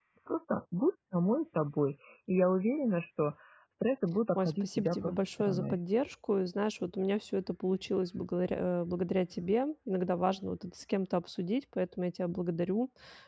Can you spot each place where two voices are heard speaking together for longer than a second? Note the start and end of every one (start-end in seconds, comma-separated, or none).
4.4-5.8